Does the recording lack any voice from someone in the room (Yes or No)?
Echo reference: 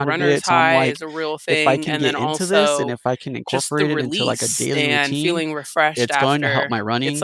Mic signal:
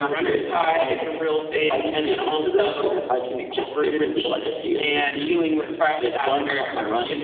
Yes